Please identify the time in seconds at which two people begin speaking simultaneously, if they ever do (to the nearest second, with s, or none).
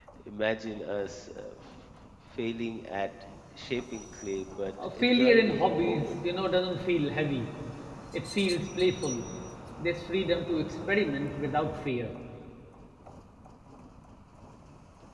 5 s